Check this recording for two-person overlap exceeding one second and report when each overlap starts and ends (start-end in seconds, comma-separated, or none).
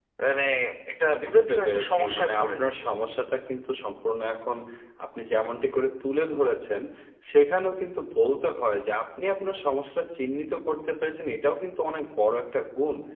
1.2-2.7